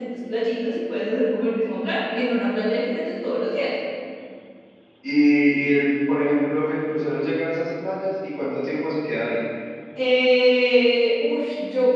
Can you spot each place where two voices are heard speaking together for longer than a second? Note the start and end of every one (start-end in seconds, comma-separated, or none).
none